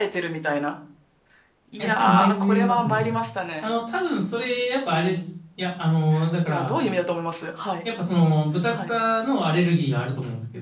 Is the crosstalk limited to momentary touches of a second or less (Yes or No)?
No